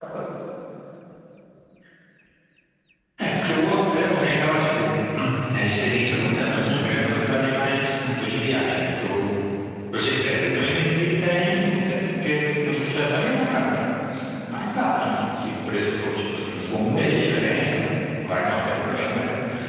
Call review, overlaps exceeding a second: none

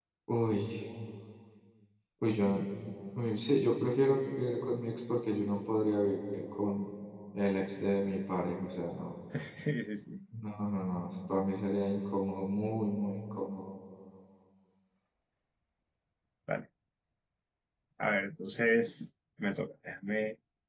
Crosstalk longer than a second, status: none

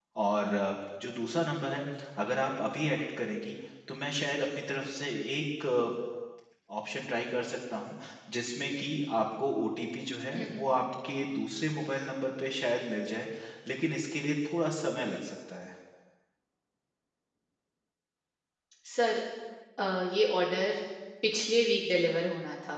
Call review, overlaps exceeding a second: none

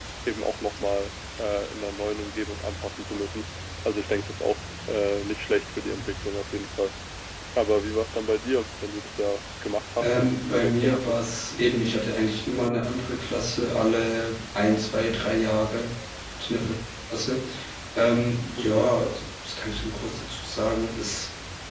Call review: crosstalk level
present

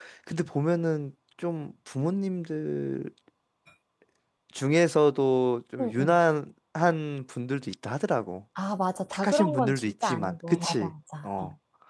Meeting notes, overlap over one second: present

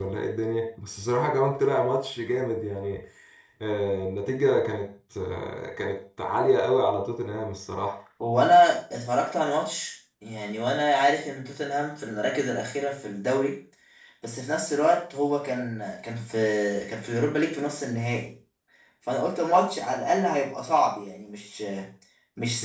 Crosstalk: none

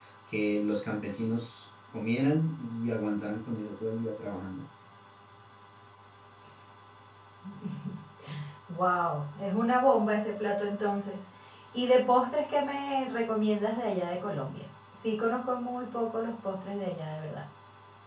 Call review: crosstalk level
none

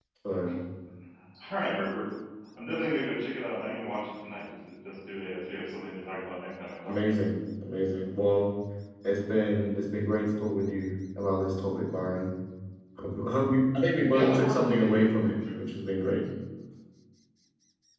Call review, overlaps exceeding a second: present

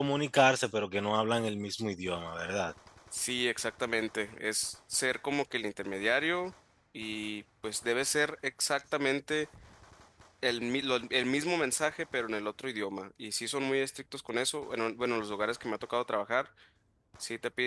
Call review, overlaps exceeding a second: none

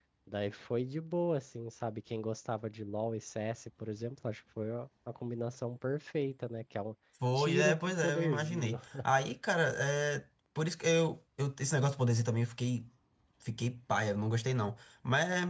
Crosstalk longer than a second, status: present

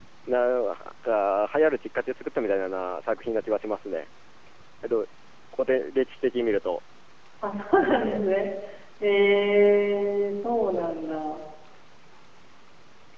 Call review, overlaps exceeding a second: none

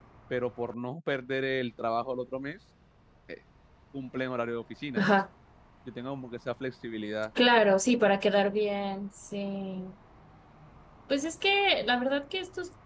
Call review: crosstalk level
none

